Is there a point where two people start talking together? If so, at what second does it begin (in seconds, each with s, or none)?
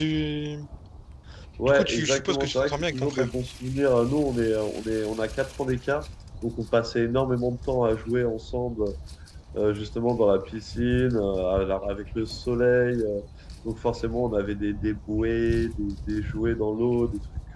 1.6 s